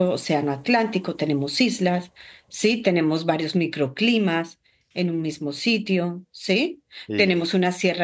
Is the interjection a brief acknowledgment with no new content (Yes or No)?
Yes